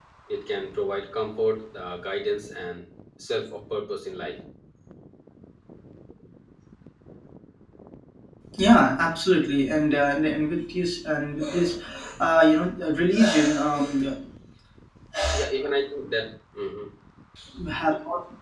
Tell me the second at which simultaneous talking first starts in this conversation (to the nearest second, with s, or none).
none